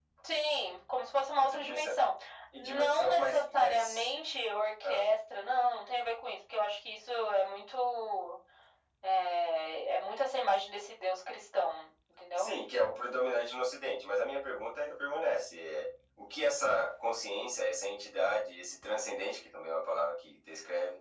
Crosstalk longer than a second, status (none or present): present